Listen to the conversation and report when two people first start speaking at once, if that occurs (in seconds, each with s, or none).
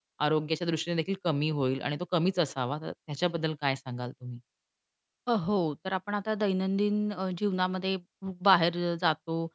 none